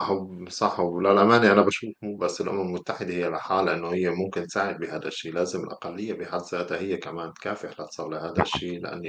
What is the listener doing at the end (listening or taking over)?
listening